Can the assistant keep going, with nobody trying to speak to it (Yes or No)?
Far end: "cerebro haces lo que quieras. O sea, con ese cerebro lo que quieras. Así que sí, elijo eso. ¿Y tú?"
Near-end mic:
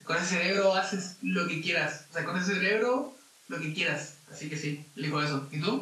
Yes